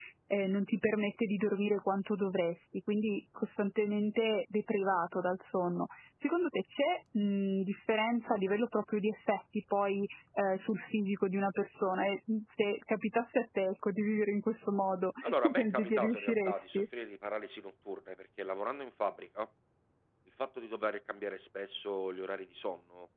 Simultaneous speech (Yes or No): Yes